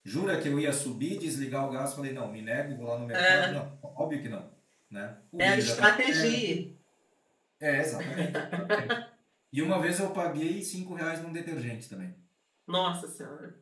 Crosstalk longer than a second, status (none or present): present